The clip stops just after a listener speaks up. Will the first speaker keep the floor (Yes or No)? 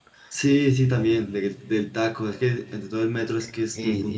No